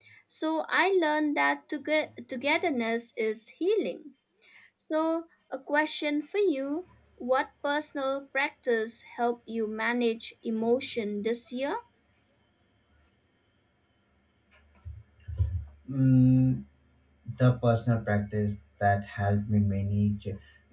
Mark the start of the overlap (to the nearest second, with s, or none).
none